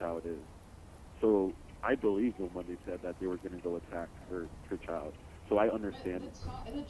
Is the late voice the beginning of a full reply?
Yes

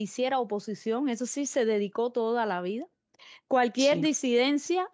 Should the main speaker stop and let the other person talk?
No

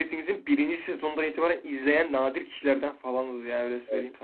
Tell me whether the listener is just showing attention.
No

